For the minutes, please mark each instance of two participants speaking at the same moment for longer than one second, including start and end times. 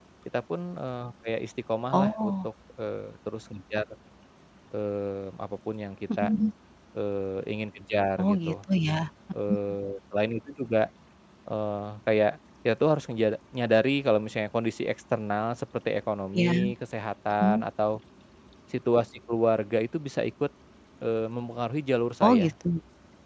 none

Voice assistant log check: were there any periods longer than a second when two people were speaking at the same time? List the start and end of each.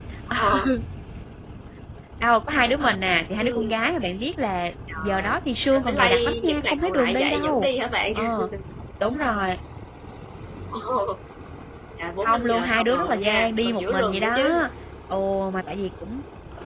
5.7-7.7, 12.2-14.5

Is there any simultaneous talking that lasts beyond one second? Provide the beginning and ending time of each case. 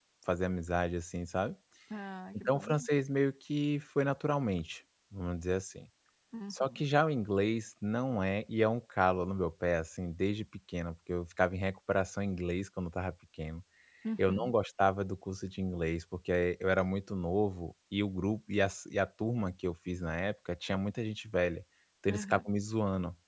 none

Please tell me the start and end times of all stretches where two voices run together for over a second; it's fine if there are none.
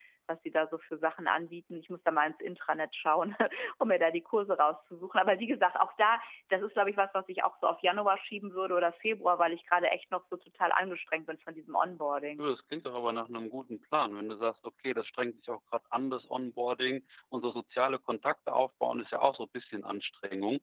none

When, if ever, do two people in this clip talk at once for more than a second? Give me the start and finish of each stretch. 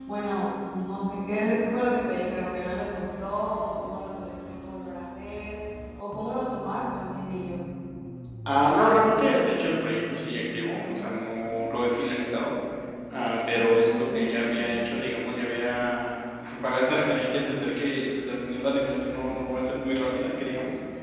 13.5-14.7

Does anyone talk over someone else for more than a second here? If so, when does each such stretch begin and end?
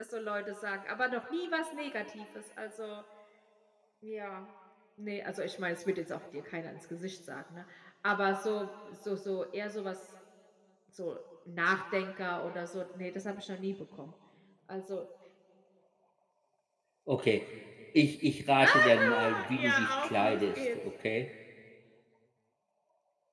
18.6-20.8

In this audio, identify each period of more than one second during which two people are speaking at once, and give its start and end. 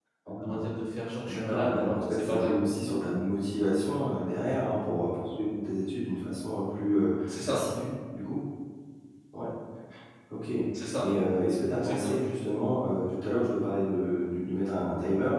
1.2-2.7

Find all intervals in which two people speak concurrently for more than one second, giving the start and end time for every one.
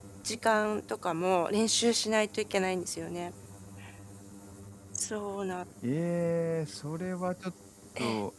none

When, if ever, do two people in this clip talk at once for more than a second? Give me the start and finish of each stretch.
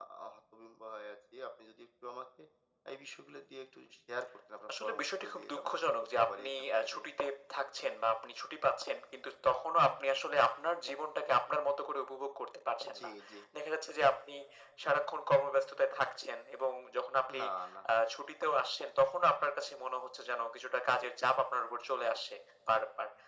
4.7-7.0

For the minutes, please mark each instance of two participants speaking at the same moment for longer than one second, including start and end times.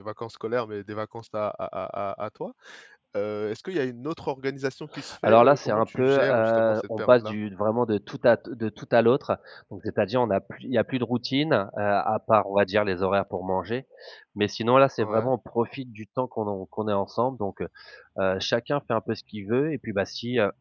5.2-7.3

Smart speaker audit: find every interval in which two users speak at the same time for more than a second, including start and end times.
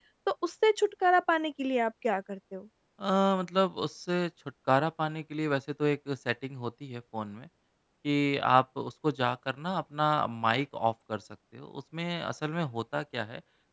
none

